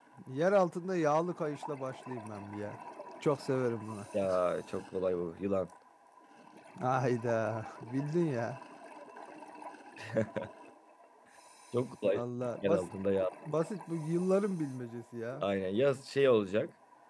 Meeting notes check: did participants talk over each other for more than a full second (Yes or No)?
No